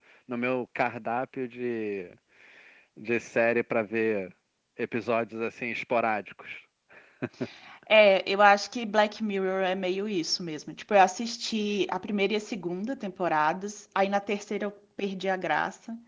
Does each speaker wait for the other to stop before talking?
Yes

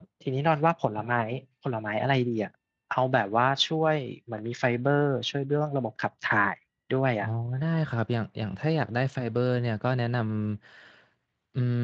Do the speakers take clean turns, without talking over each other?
Yes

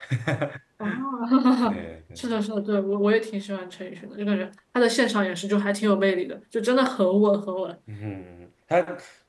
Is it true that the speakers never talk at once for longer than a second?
Yes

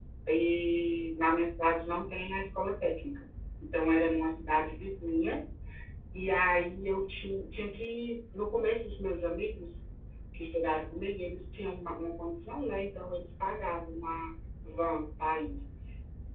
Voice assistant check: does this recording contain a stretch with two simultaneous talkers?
No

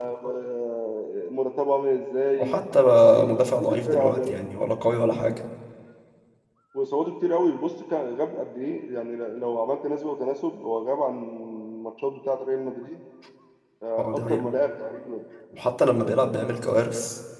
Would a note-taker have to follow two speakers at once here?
Yes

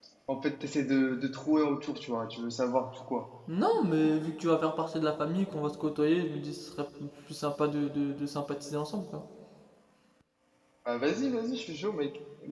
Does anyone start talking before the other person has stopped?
No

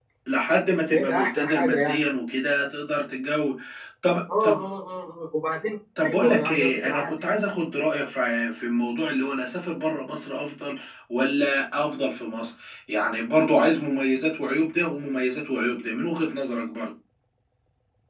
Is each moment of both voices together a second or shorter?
No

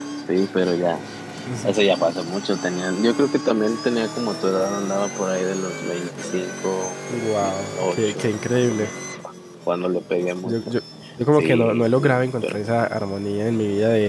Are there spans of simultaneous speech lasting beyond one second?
Yes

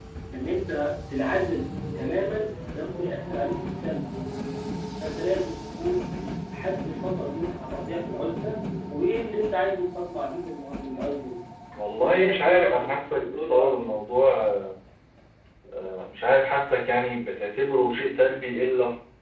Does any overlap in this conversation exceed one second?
Yes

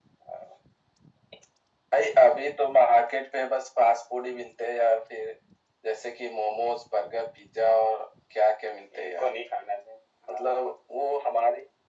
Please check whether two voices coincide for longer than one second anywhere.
No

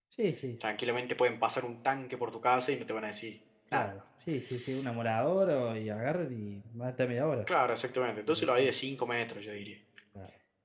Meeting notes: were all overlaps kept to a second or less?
Yes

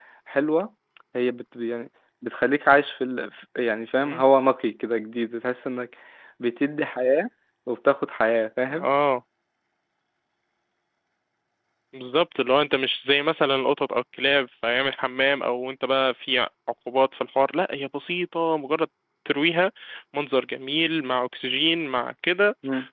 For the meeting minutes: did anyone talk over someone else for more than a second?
No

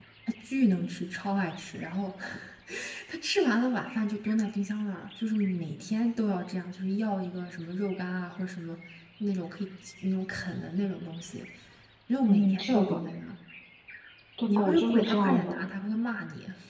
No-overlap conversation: No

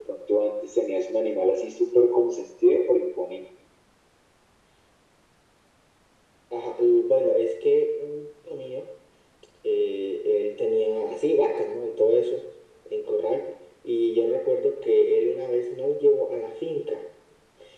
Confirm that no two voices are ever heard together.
Yes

